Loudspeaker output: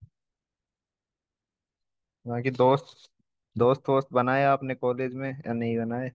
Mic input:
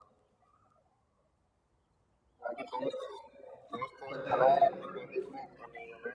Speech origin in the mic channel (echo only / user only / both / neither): both